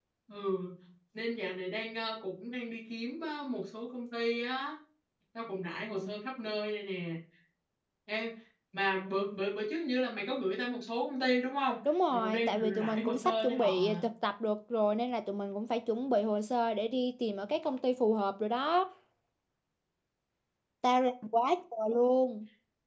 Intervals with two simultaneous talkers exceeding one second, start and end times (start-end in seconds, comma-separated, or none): 12.1-14.0